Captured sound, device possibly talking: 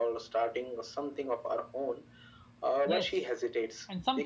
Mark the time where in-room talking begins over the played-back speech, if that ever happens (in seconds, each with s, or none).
2.8 s